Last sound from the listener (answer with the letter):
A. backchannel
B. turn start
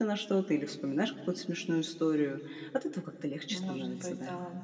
B